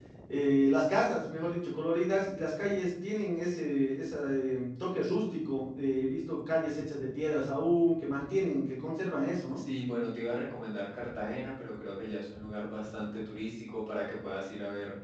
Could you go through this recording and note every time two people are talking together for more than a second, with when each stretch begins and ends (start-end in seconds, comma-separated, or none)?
none